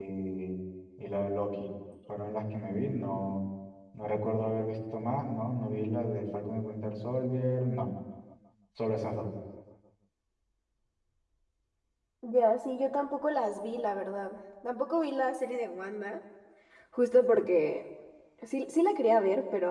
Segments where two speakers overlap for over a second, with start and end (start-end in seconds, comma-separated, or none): none